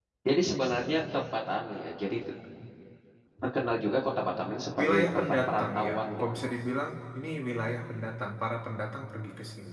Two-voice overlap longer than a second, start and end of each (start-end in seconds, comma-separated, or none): 4.8-6.4